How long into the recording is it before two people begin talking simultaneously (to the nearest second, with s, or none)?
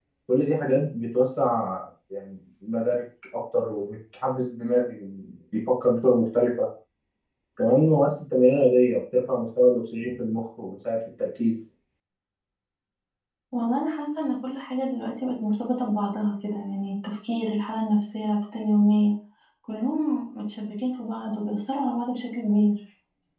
none